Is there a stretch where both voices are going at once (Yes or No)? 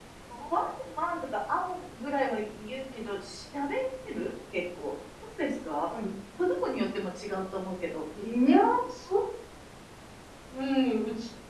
No